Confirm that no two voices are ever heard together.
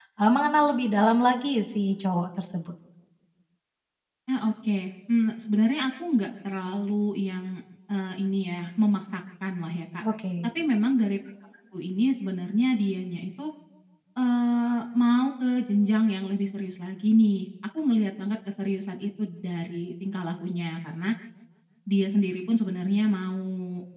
Yes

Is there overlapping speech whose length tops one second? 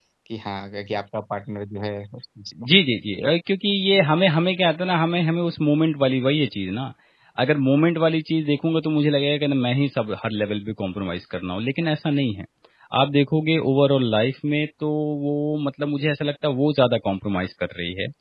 No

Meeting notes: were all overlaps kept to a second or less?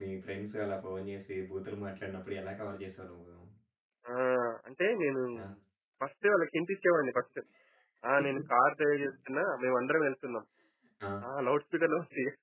Yes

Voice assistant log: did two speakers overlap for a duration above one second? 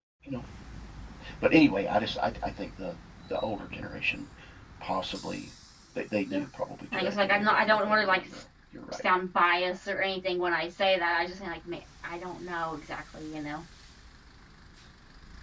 Yes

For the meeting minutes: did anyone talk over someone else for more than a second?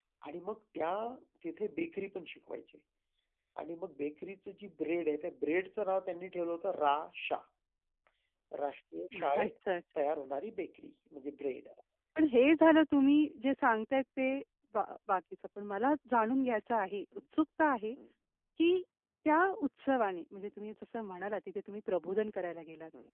No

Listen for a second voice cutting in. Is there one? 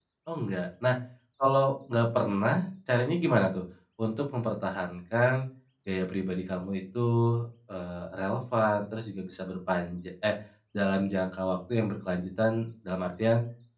No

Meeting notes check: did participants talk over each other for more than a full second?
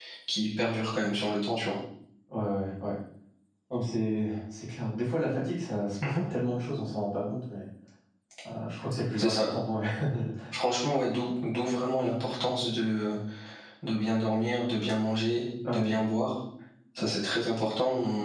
No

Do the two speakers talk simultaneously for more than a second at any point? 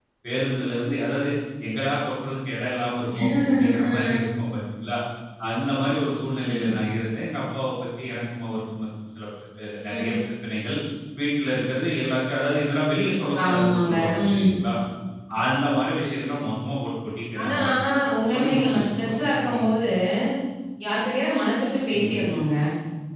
Yes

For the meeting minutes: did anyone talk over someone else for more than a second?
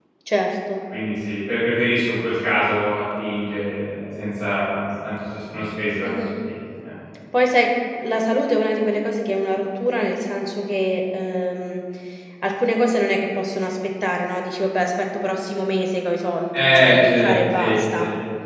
Yes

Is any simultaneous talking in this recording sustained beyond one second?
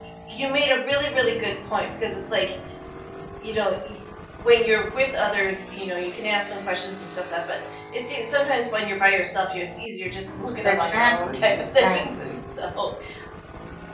Yes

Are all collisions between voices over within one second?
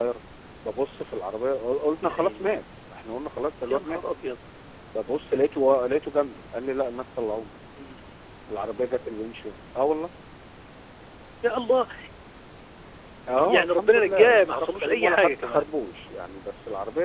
No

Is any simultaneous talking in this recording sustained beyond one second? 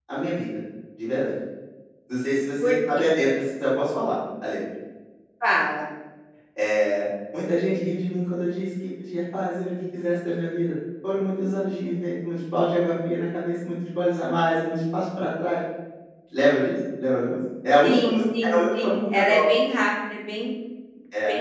Yes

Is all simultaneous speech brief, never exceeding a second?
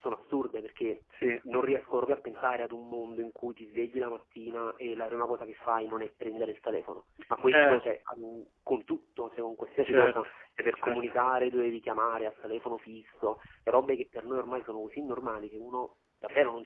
Yes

